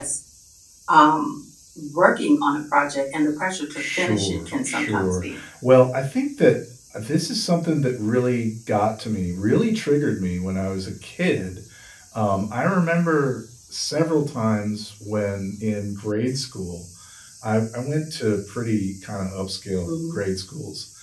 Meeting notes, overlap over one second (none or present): present